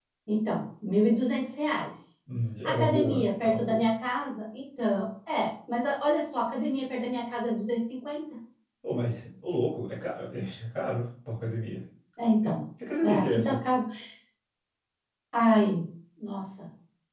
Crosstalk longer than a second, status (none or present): present